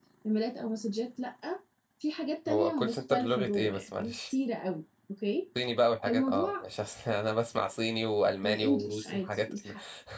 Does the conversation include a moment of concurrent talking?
Yes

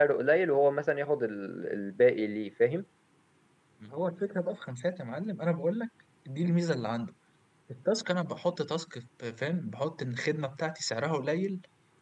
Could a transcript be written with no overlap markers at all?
Yes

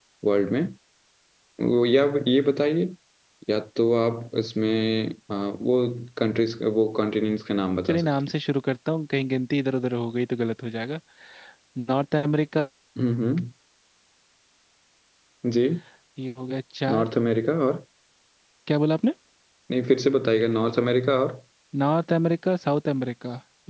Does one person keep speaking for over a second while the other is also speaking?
No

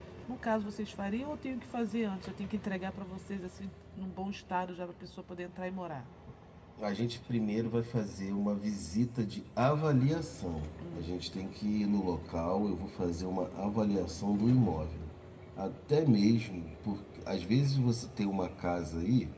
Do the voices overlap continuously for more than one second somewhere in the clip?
No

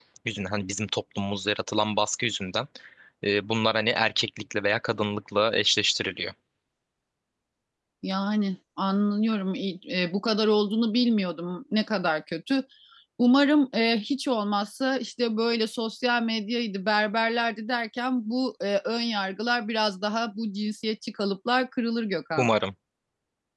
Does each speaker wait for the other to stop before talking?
Yes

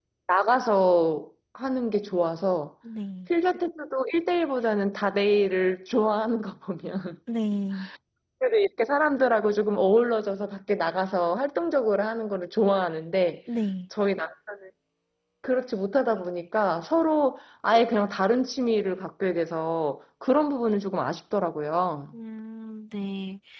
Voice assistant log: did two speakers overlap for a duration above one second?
No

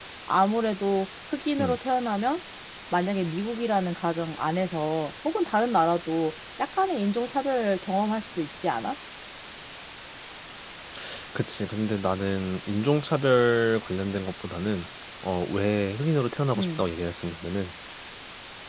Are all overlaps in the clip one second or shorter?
Yes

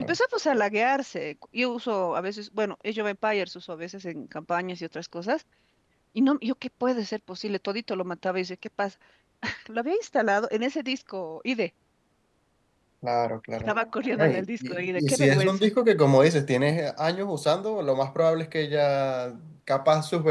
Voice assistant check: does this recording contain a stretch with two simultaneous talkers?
Yes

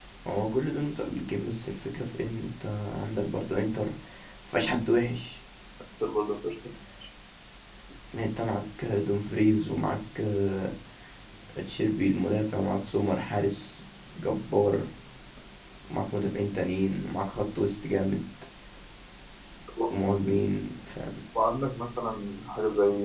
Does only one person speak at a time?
Yes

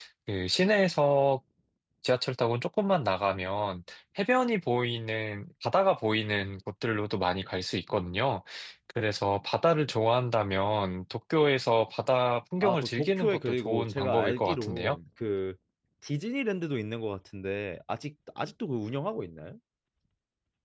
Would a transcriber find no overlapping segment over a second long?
No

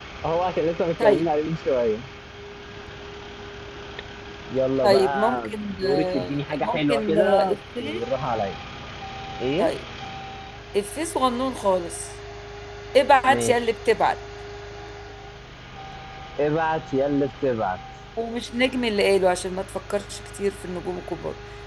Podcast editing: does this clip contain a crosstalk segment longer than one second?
Yes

